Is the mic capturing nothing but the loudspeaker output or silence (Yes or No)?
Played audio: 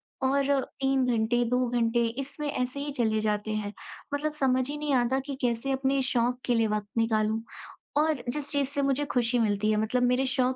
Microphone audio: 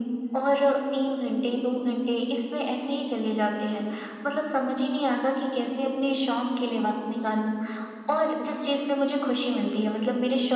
Yes